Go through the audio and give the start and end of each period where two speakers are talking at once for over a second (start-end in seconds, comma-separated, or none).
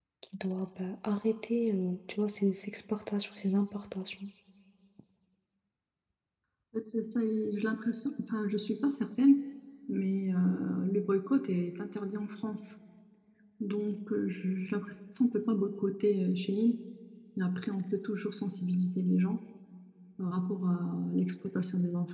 none